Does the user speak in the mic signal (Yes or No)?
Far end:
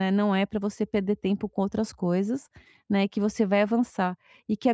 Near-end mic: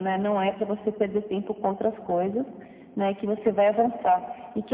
No